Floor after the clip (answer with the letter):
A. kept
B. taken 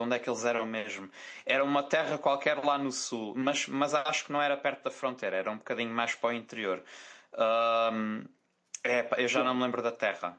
A